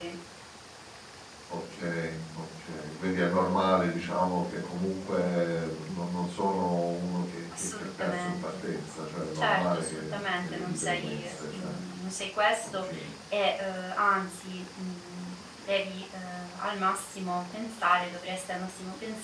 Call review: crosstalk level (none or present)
present